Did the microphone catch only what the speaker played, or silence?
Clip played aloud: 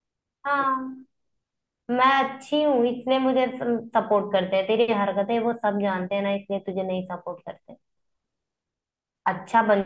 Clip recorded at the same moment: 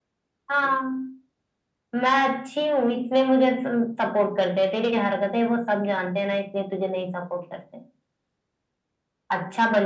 Yes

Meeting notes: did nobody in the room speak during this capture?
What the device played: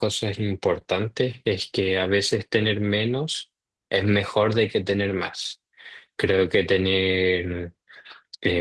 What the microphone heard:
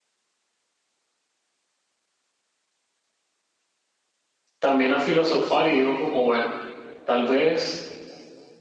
No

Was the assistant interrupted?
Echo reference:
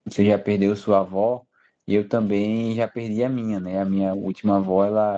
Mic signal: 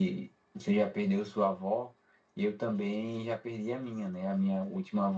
No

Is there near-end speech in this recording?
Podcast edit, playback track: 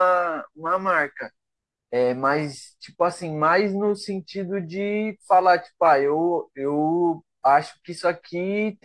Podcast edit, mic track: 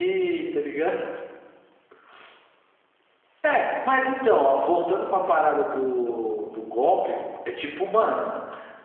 Yes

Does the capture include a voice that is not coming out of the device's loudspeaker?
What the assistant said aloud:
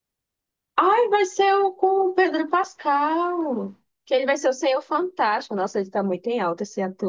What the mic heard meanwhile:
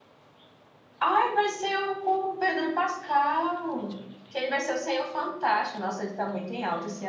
No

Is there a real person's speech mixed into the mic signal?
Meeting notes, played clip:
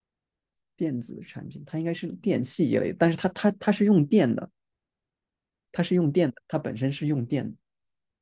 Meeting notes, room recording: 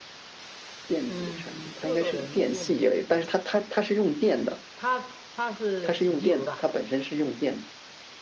Yes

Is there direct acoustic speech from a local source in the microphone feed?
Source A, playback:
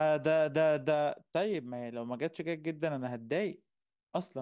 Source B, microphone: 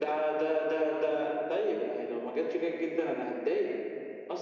No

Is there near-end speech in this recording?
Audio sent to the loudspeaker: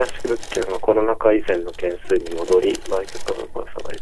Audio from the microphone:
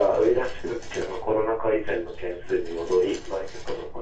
No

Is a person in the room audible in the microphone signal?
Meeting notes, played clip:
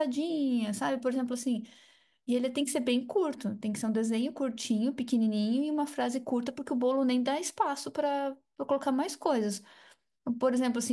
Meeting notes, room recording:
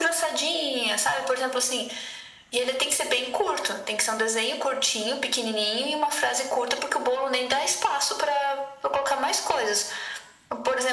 No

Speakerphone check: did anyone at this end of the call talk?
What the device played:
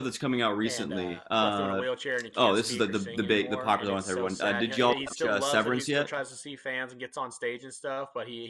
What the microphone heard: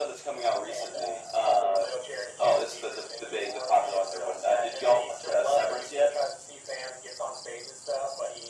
No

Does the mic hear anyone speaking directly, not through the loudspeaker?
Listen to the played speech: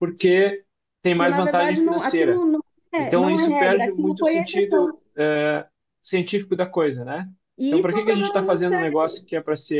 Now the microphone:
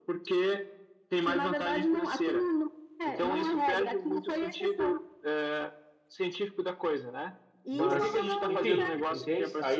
Yes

